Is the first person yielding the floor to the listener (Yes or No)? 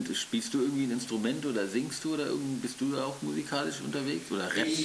Yes